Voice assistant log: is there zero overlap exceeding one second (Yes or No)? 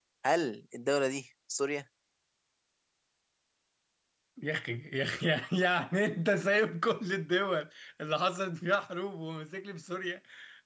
Yes